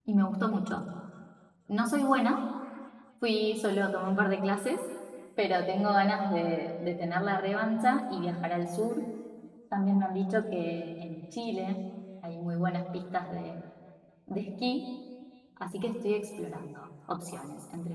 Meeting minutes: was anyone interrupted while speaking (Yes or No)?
No